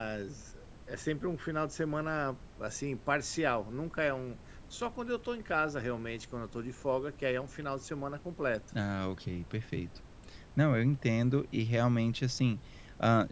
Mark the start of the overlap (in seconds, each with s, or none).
none